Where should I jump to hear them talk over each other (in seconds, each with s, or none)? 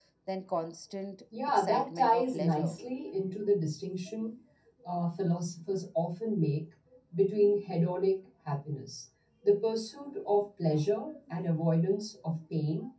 1.3 s